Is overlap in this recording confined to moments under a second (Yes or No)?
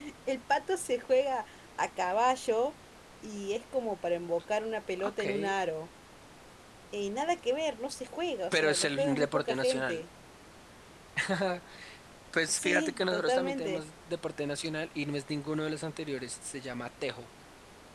No